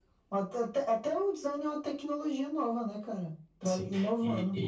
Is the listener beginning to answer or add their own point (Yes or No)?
Yes